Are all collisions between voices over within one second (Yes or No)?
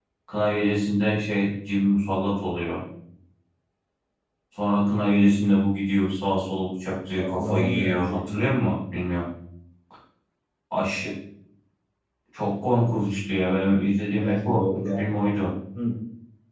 No